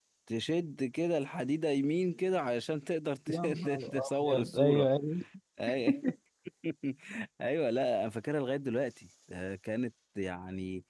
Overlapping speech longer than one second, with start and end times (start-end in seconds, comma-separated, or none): 3.3-4.8